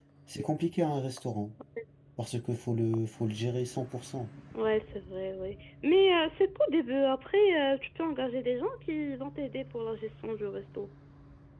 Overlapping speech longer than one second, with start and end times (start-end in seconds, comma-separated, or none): none